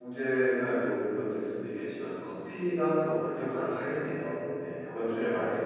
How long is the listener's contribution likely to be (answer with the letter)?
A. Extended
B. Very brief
A